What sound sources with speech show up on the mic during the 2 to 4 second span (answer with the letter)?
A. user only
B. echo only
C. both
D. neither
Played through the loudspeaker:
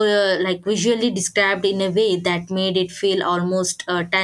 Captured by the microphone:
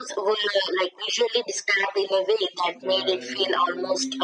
C